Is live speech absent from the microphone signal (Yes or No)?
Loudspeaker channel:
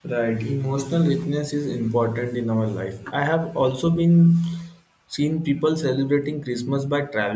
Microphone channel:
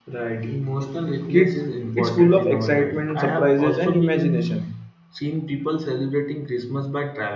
No